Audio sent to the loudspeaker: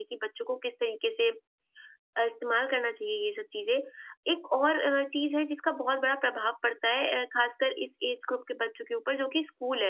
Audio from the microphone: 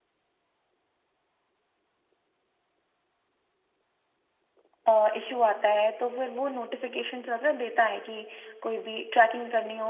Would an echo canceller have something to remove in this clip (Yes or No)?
No